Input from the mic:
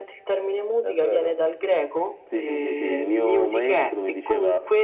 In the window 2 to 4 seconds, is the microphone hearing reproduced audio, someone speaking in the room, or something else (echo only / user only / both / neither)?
echo only